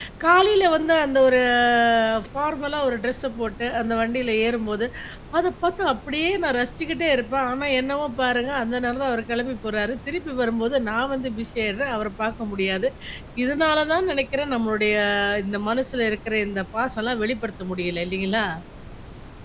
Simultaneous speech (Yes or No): No